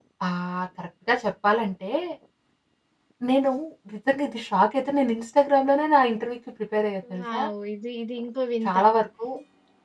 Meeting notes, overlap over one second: none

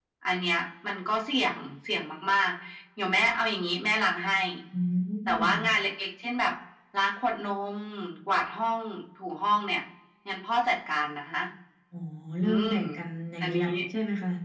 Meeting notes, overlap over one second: none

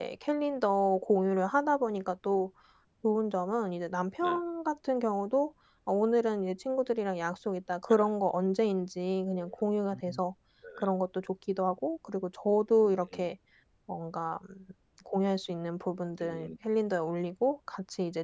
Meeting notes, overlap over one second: none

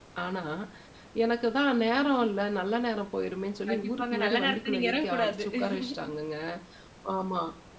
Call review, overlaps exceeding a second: present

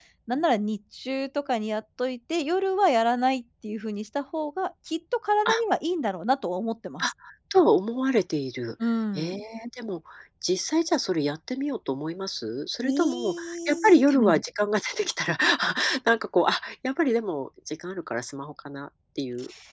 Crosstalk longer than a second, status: present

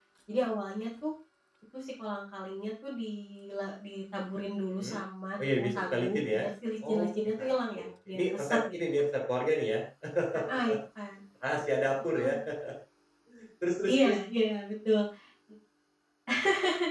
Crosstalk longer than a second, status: present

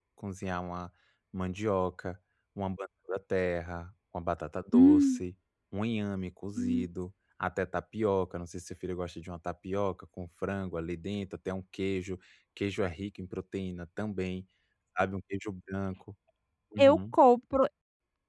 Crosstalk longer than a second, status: none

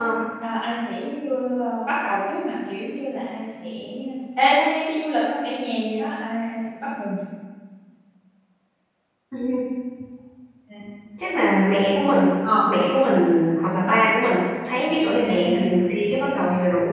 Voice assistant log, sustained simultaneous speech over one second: none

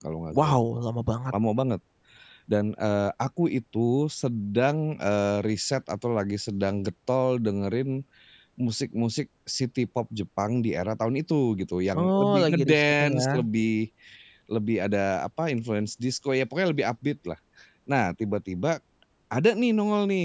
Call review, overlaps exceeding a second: present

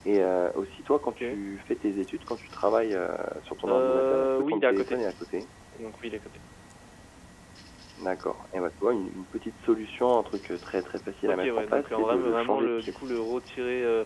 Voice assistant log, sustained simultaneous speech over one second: present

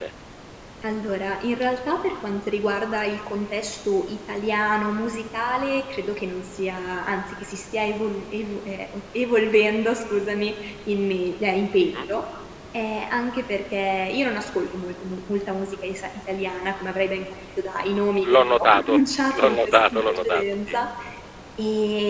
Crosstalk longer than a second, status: present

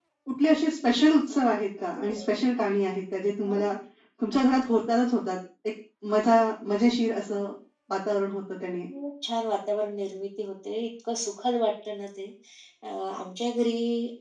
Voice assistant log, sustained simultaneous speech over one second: none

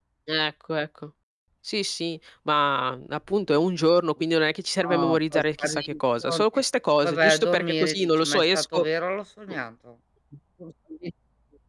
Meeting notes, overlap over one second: present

